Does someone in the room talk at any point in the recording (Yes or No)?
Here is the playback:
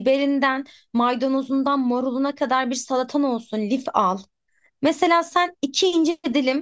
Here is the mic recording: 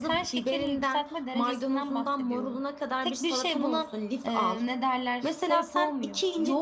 Yes